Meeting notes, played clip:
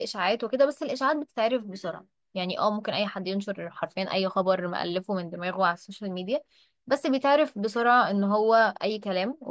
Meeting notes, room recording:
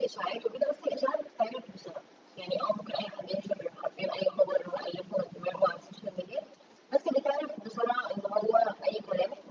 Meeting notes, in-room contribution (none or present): none